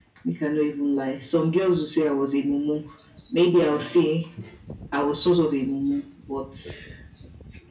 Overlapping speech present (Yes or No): No